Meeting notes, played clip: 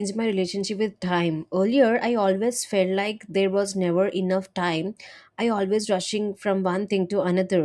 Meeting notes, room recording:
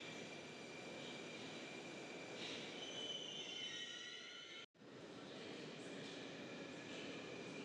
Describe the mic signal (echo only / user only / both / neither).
neither